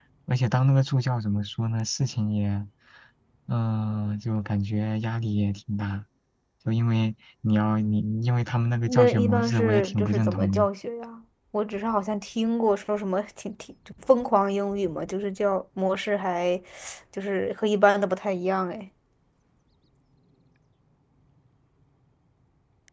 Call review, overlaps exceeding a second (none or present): present